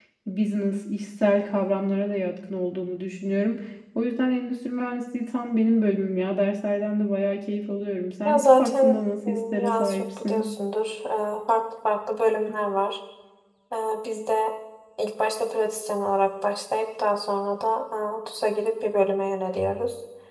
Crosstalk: present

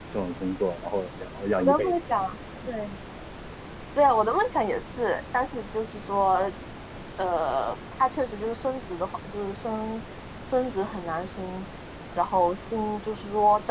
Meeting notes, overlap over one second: none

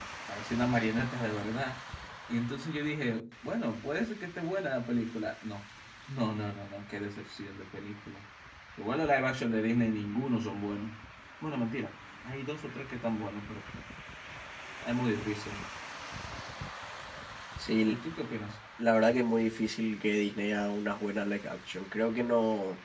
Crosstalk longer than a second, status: none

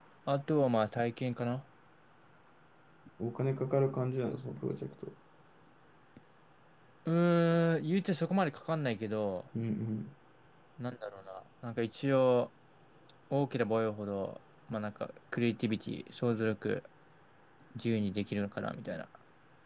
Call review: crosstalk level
none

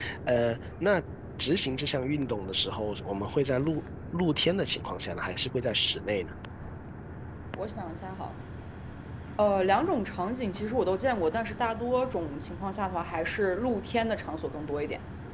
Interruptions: none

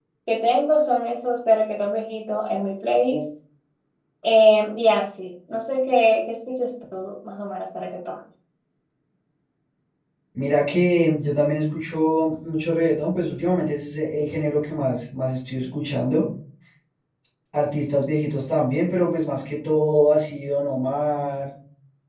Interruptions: none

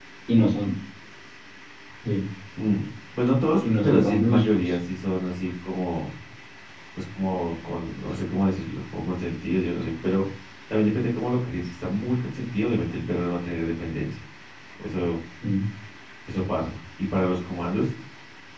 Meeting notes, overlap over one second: present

